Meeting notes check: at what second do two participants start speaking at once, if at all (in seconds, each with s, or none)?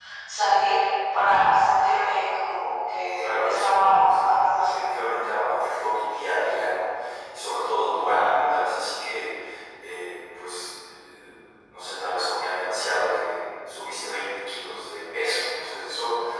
3.2 s